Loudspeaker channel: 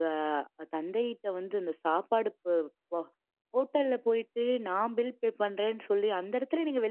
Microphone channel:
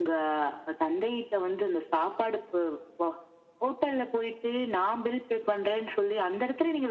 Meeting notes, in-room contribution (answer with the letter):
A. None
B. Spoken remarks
A